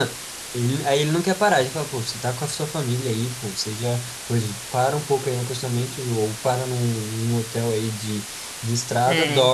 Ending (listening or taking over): listening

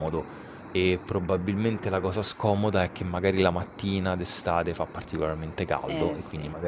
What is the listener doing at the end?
listening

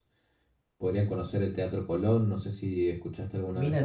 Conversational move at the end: taking over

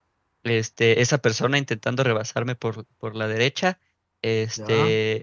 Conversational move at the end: listening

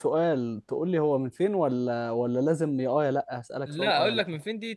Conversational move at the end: taking over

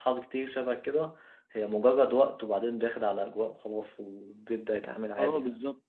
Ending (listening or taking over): taking over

